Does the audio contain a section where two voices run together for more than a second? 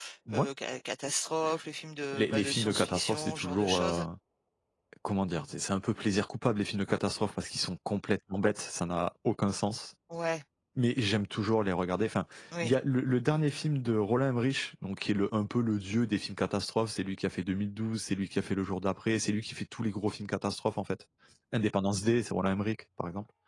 Yes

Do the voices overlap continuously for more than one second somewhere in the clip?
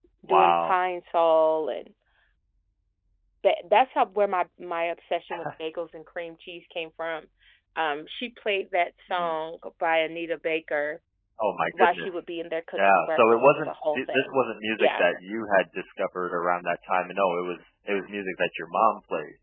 Yes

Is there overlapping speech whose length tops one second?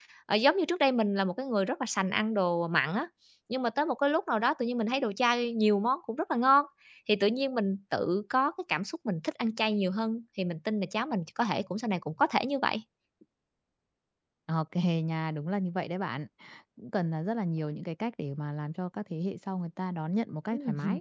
No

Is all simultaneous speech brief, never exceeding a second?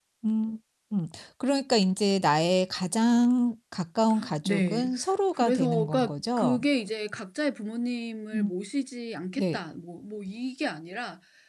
No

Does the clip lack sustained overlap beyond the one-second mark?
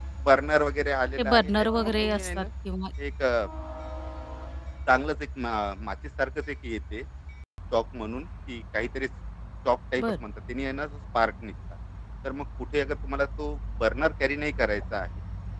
No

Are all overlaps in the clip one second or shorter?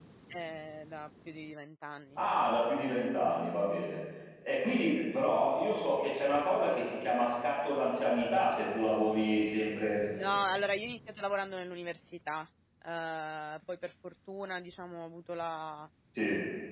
Yes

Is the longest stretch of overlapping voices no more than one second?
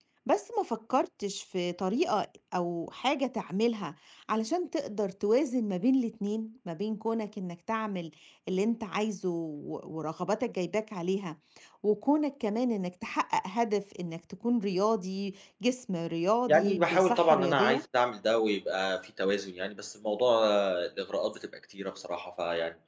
No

